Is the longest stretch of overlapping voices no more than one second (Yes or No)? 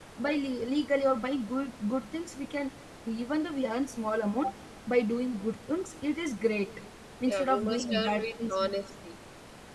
No